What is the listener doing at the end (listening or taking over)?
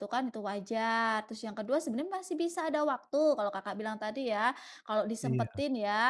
listening